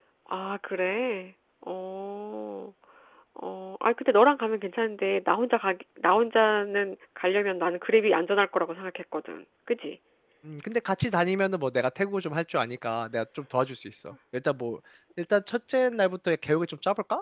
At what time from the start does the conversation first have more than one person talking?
none

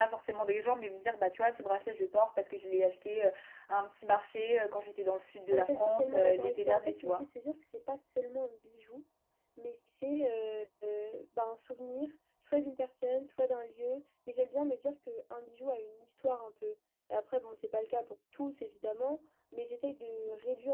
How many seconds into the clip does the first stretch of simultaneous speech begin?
5.5 s

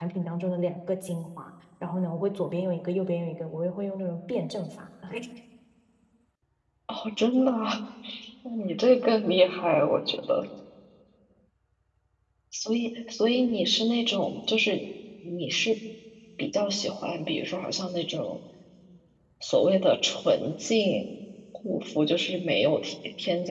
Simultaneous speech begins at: none

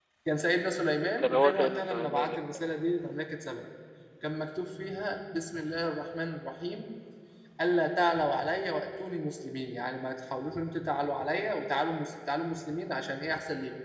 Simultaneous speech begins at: 1.2 s

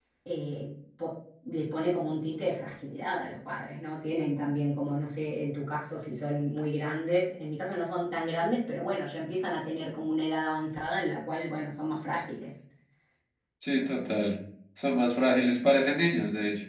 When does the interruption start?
none

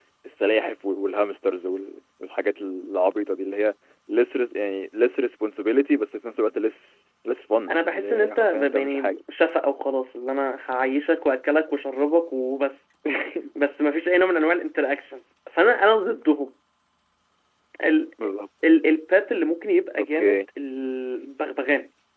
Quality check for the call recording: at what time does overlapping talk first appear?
7.7 s

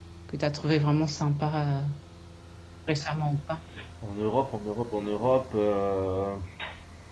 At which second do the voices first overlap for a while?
none

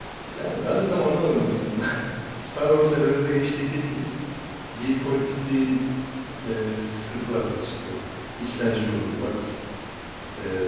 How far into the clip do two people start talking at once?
none

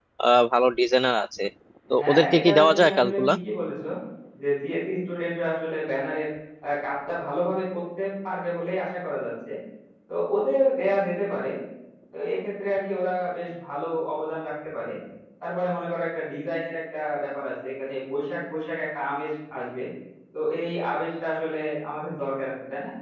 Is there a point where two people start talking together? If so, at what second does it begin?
2.0 s

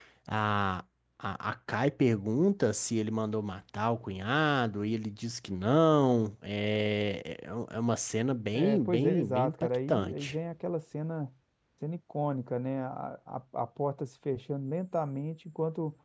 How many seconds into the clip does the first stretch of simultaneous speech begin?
8.5 s

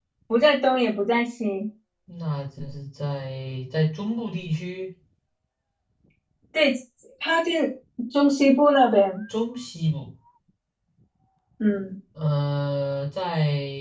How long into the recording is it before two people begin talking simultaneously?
none

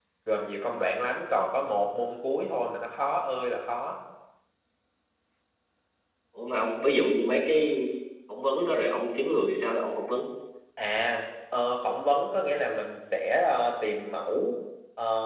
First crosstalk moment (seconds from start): none

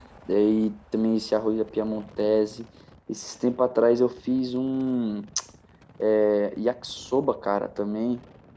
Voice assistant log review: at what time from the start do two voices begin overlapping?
none

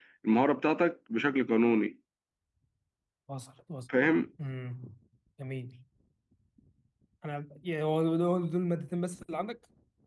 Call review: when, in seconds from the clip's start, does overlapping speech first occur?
none

